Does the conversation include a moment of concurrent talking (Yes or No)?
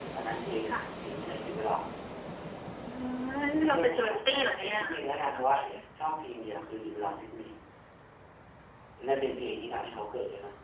Yes